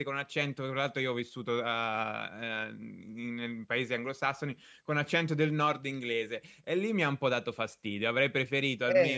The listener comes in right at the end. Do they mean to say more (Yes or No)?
No